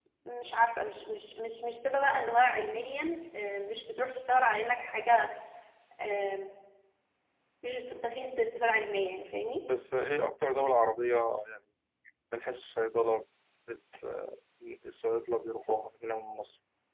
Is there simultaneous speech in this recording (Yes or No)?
No